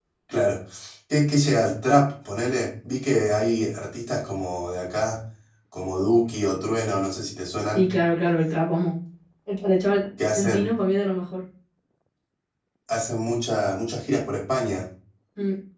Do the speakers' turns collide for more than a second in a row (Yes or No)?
No